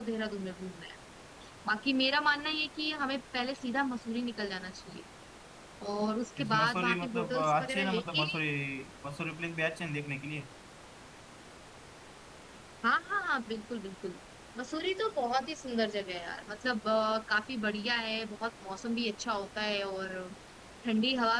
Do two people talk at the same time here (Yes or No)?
Yes